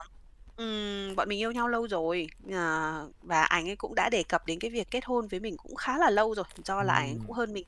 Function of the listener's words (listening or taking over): listening